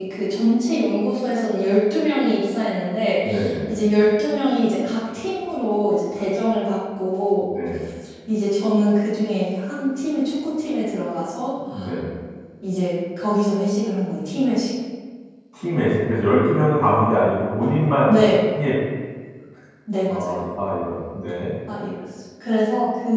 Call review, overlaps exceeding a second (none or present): none